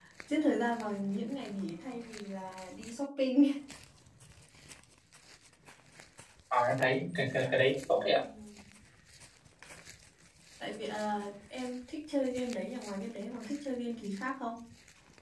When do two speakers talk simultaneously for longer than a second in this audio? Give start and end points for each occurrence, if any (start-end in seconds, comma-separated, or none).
none